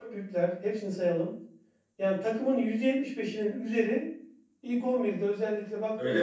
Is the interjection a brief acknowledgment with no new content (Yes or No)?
No